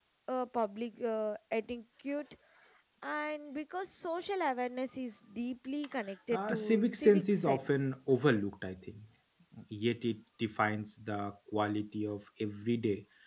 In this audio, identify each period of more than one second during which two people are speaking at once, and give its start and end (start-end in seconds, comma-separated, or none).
6.3-7.9